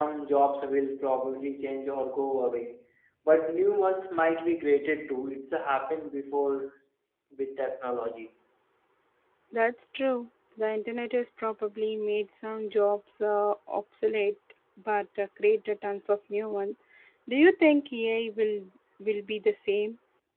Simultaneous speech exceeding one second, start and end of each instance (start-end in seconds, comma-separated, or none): none